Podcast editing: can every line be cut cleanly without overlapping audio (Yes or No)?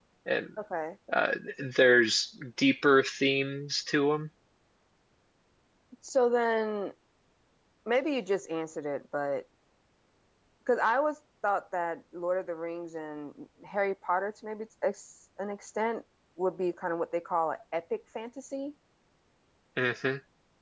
Yes